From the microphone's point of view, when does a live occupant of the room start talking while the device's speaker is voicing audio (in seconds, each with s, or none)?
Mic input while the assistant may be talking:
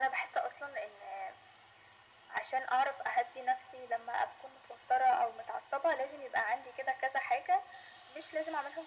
none